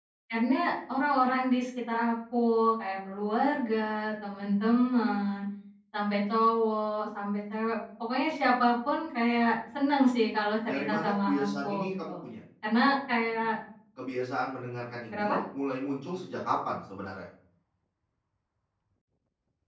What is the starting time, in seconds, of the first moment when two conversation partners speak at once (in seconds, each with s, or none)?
10.7 s